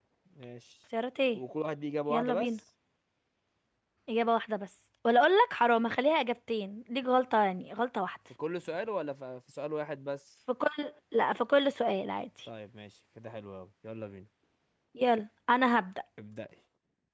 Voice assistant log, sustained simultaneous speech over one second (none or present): none